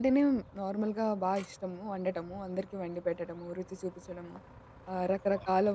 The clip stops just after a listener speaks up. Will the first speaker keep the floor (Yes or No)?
Yes